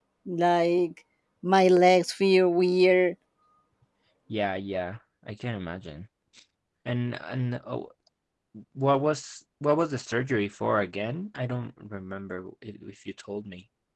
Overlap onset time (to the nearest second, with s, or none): none